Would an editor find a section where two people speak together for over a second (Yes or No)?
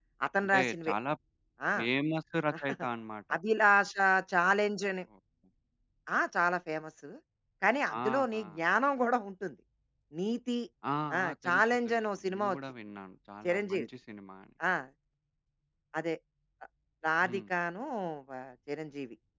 Yes